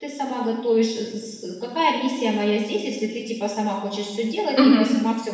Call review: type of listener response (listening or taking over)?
taking over